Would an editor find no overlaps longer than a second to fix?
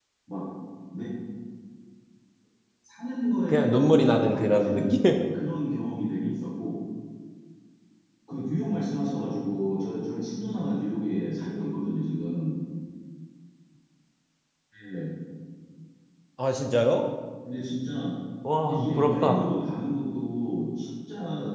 No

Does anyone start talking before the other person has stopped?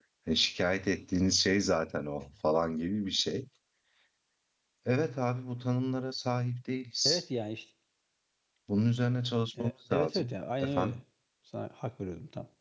Yes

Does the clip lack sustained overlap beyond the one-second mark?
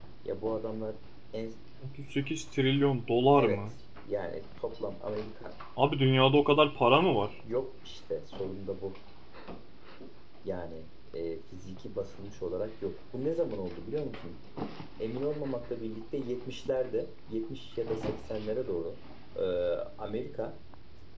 Yes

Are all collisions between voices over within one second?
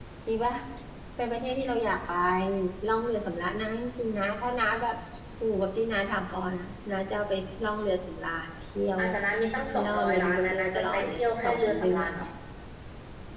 No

